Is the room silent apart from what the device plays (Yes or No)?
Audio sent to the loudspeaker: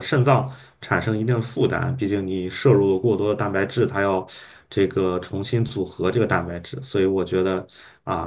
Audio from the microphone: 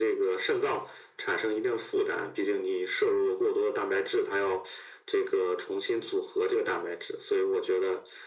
Yes